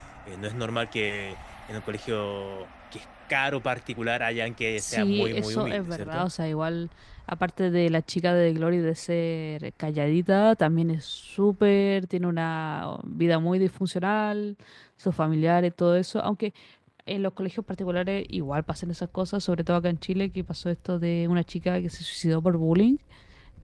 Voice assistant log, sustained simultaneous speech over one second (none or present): present